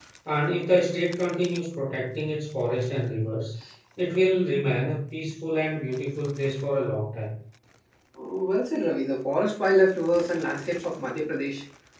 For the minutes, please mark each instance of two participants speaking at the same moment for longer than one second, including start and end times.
none

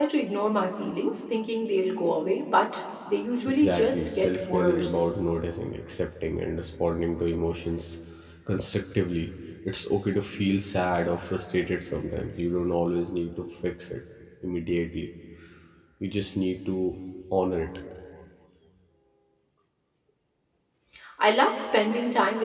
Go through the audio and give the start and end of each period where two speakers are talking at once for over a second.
3.5-5.0

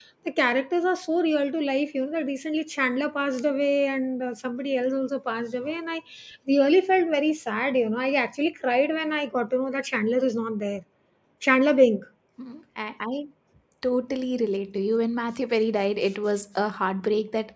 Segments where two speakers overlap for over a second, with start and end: none

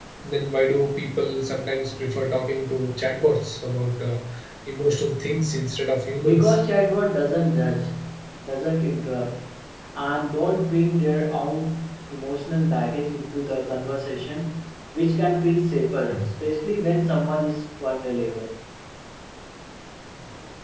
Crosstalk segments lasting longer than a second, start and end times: none

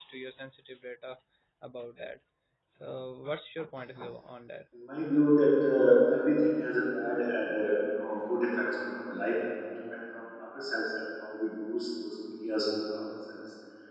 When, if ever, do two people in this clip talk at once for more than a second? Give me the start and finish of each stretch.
none

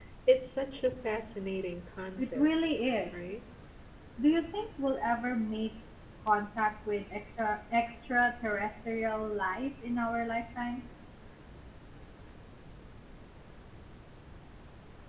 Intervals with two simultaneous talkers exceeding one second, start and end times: none

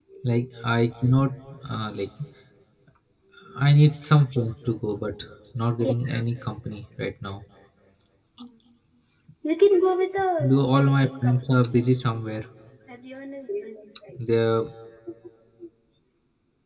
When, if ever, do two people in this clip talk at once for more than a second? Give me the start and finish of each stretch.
10.4-11.8

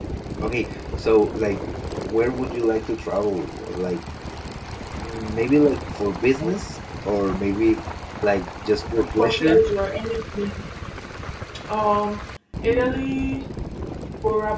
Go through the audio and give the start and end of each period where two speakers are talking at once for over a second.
none

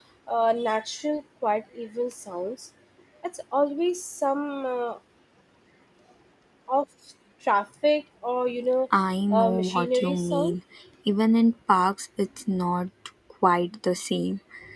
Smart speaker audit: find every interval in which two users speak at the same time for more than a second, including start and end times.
9.3-10.6

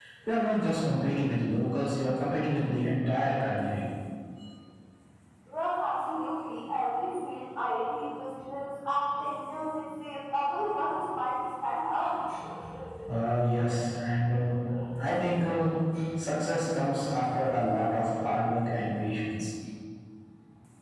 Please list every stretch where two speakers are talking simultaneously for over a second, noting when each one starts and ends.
none

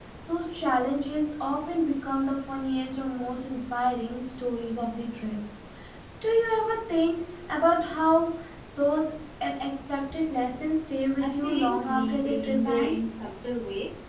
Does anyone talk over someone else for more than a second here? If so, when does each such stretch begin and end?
11.2-13.1

